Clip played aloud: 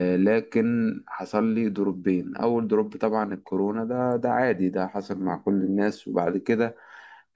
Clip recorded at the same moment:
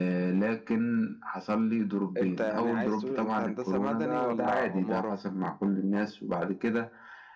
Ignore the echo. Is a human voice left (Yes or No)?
Yes